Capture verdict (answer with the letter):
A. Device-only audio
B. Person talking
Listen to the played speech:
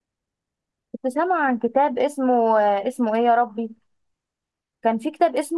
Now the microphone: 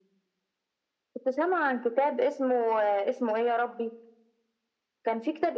A